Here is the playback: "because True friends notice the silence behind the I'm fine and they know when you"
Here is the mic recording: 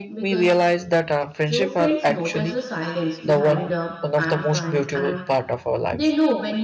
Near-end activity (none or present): present